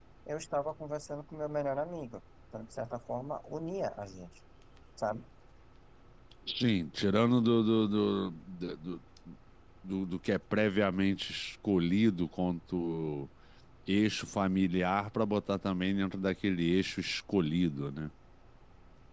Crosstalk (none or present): none